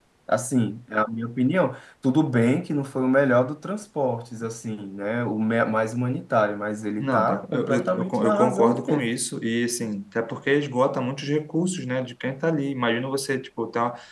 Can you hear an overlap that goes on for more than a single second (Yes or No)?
Yes